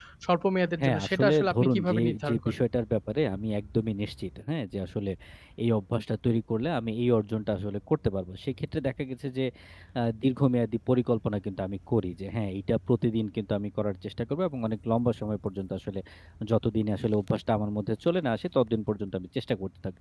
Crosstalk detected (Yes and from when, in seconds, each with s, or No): Yes, from 0.8 s